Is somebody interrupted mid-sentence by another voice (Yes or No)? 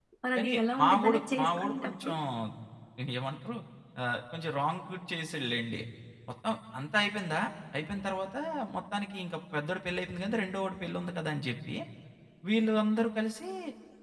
Yes